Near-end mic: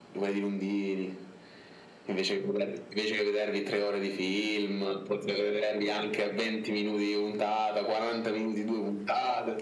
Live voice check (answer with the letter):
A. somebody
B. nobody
B